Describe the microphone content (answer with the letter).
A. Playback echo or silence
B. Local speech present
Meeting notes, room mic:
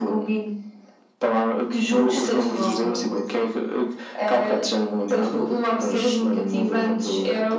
A